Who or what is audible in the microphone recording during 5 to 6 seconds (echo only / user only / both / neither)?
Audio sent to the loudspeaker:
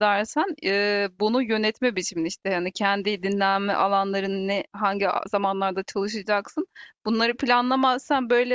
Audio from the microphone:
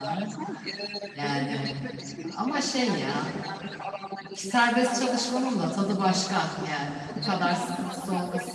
both